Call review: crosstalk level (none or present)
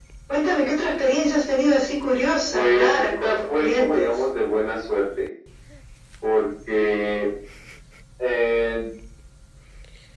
present